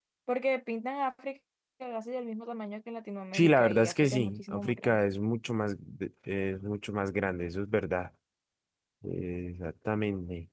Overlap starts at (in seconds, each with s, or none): 3.3 s